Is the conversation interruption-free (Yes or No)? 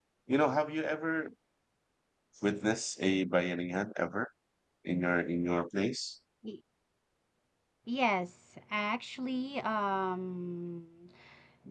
Yes